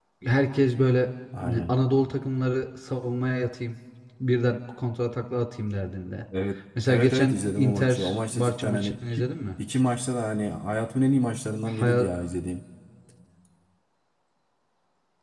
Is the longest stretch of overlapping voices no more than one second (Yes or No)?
No